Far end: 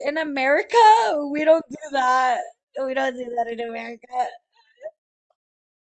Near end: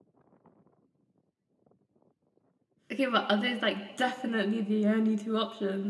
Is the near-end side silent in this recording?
No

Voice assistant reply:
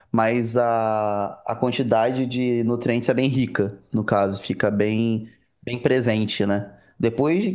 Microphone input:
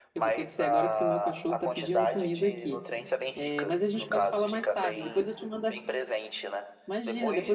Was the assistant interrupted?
Yes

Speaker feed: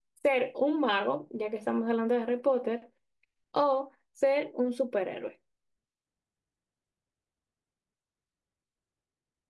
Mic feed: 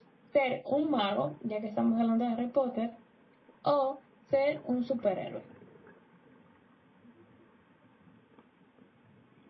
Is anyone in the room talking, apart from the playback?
No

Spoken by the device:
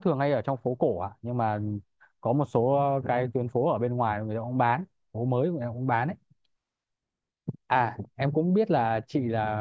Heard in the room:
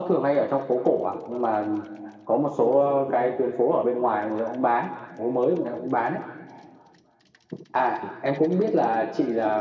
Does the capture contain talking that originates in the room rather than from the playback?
No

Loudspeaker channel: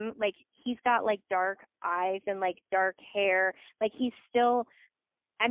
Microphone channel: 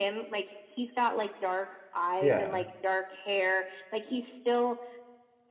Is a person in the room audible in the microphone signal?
Yes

